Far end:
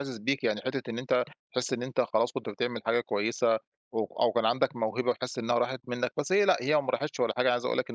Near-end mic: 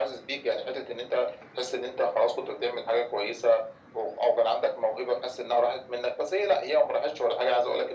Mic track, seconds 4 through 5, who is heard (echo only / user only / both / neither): echo only